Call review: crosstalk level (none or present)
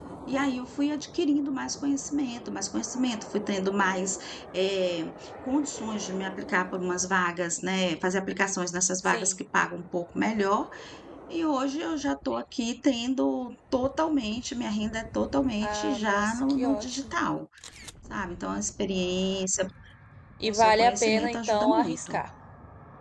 present